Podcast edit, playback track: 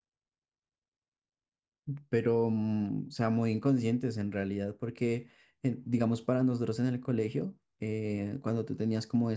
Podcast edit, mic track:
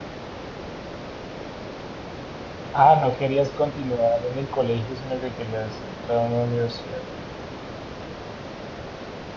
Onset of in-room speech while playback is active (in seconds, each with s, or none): 2.7 s